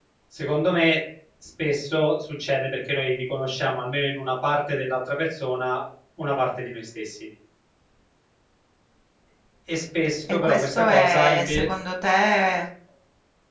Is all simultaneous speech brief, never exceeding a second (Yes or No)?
No